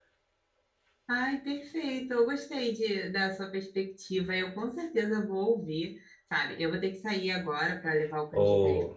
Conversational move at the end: listening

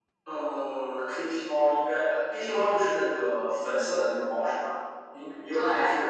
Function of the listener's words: listening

